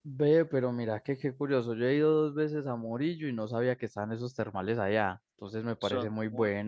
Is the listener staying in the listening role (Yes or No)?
Yes